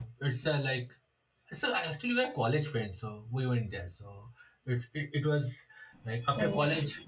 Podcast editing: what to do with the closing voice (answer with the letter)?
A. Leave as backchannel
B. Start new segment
B